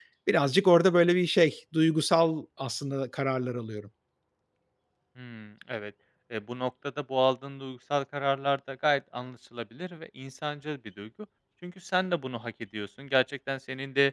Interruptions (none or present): none